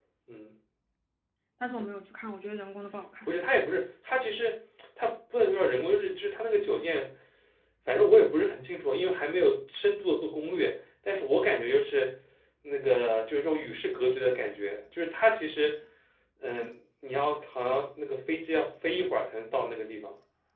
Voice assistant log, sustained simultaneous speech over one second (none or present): none